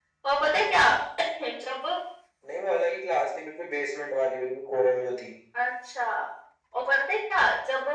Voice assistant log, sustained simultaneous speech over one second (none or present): none